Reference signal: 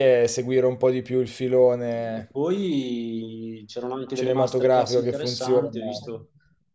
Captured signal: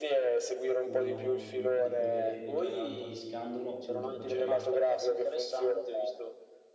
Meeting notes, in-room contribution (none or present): present